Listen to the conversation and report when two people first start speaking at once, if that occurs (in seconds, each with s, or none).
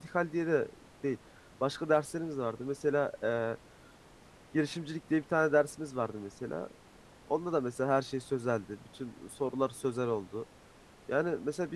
none